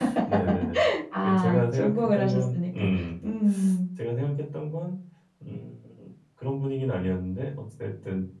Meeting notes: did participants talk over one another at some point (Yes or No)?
Yes